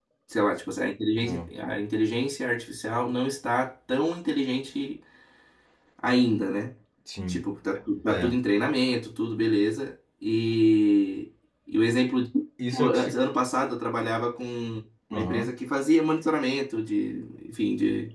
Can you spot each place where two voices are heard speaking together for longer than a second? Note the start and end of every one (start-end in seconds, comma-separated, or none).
none